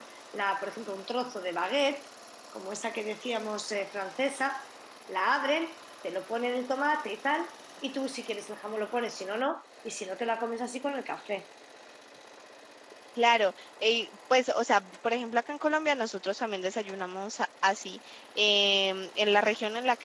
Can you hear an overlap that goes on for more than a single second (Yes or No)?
No